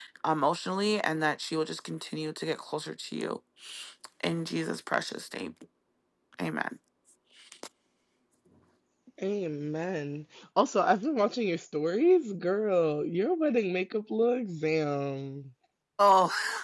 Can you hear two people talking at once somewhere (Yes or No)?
No